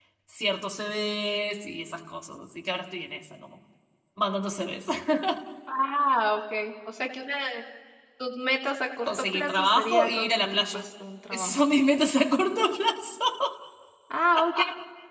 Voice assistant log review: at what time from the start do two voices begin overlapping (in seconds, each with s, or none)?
9.0 s